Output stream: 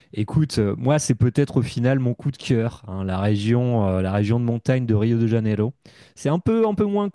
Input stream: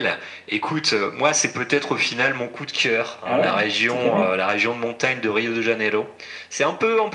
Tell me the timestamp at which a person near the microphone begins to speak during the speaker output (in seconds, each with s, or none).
3.2 s